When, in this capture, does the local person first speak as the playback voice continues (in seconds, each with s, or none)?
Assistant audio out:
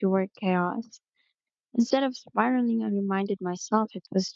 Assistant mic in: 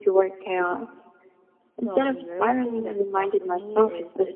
1.8 s